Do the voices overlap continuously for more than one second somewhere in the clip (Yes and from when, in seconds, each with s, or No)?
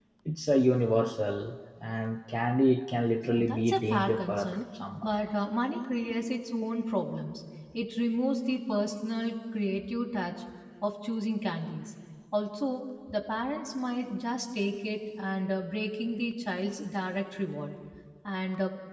Yes, from 3.3 s